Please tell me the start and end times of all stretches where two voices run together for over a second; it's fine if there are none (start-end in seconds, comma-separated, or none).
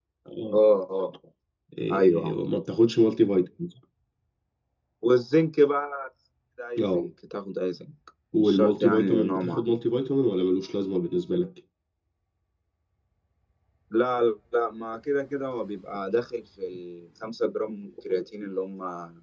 8.3-9.7